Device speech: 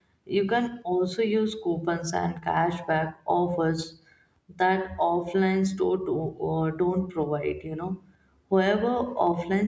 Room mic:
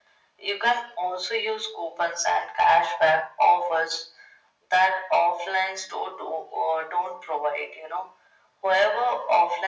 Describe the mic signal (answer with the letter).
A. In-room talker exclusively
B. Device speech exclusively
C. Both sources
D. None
B